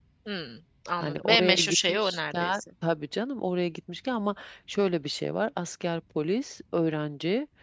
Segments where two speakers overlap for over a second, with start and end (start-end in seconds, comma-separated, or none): 1.0-2.6